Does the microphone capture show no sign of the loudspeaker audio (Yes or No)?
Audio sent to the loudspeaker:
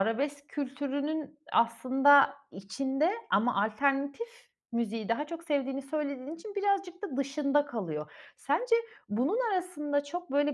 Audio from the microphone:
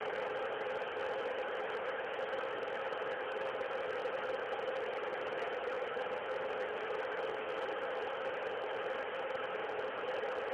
Yes